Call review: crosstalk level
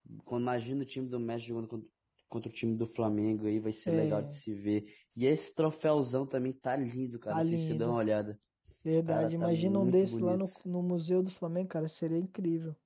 present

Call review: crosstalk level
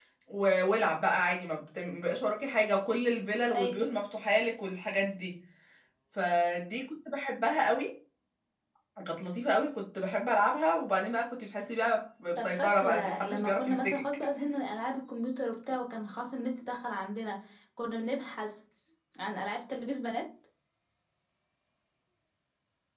present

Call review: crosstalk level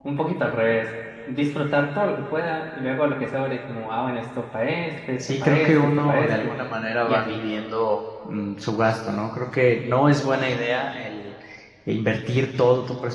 present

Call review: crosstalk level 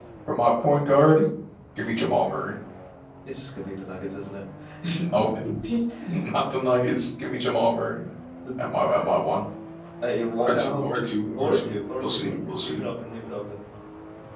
present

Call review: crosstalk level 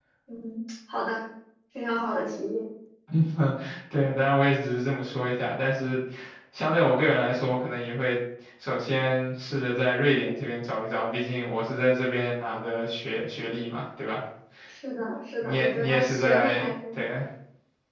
present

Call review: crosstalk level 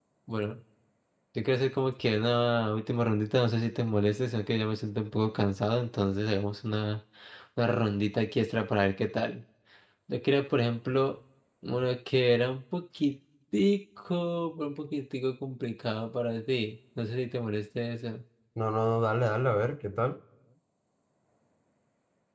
none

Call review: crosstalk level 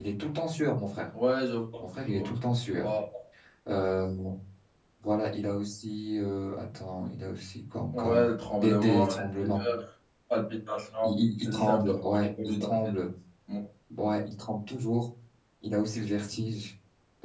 present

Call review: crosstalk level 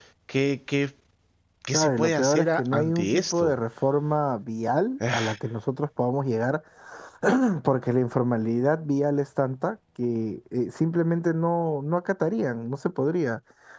present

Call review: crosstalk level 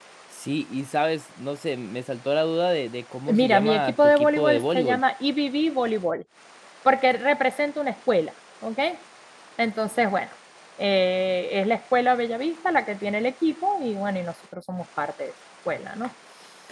present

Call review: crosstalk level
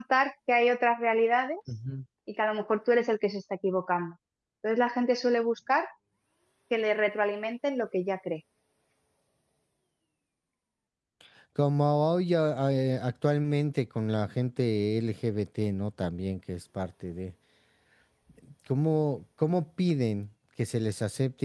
none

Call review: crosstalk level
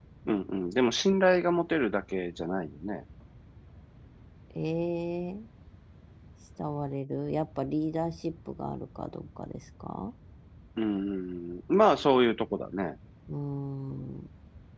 none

